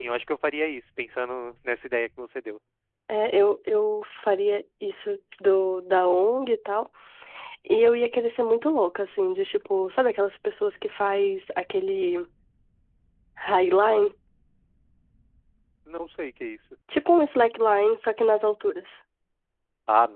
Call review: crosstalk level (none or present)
none